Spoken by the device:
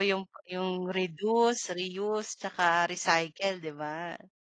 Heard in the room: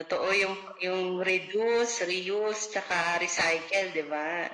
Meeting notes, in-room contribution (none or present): none